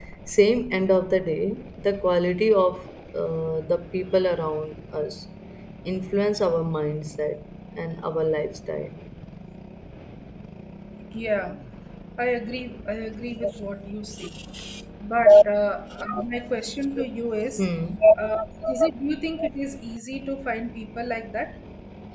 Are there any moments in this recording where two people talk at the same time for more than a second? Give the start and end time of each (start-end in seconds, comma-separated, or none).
none